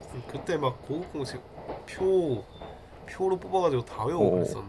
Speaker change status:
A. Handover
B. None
A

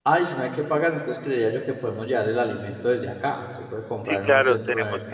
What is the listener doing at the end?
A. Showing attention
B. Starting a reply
B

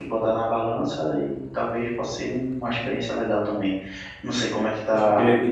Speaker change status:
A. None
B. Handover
B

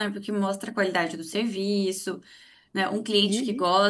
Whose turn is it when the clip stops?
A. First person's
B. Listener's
A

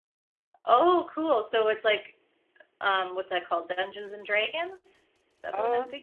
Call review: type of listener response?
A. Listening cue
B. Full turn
B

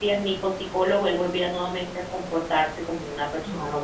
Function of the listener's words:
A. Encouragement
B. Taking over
B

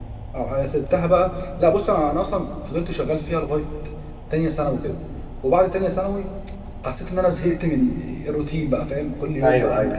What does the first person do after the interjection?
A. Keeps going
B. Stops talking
A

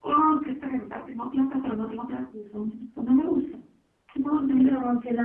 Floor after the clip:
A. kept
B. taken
B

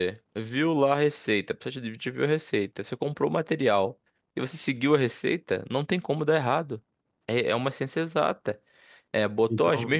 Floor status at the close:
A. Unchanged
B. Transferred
A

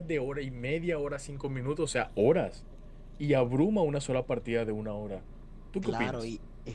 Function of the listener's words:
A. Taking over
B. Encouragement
A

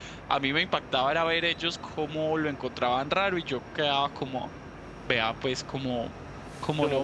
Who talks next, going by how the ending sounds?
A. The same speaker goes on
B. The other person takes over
B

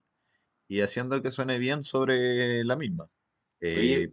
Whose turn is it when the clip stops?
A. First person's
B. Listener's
A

